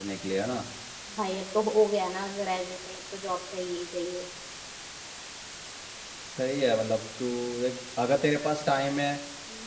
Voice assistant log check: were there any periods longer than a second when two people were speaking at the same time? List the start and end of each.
none

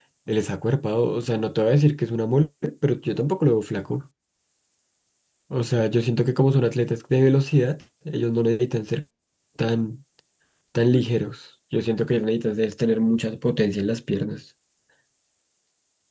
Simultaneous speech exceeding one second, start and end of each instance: none

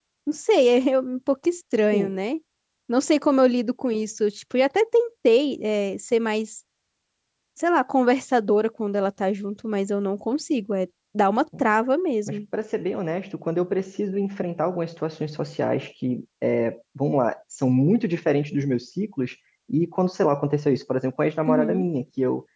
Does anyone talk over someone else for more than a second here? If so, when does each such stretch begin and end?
none

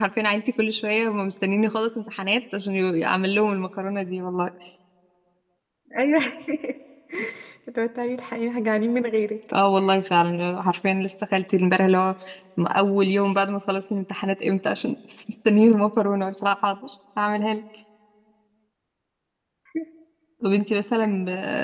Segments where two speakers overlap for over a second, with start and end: none

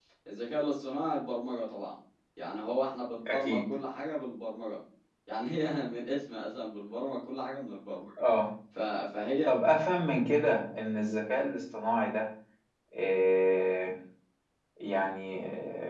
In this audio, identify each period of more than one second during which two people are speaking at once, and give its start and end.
none

